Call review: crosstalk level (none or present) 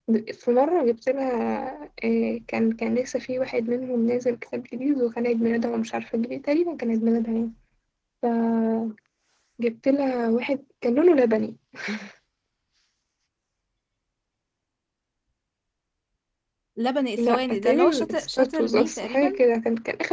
present